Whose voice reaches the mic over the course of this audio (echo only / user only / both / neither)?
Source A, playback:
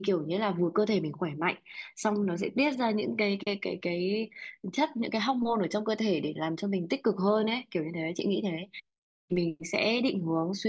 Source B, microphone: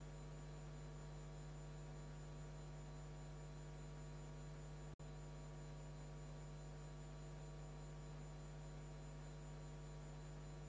neither